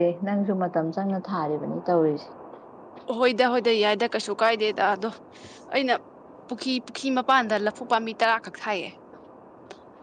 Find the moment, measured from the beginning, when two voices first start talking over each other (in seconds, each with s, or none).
none